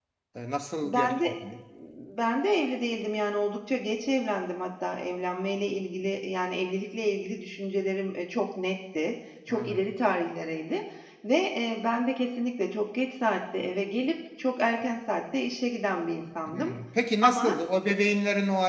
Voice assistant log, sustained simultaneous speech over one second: none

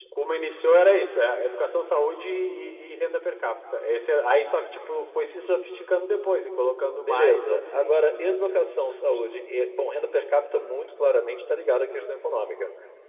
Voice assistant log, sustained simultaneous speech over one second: present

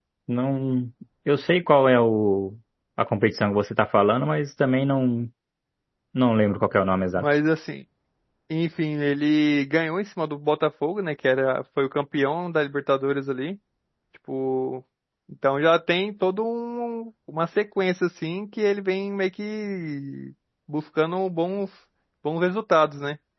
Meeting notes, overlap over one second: none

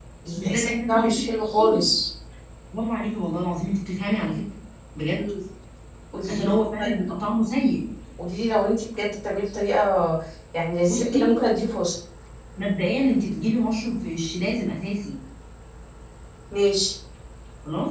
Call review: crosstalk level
present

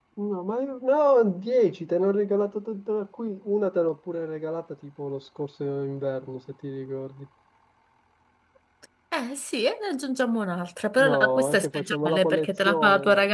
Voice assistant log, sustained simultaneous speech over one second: present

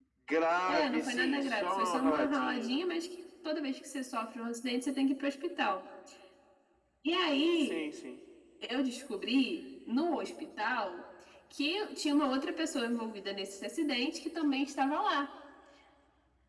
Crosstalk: present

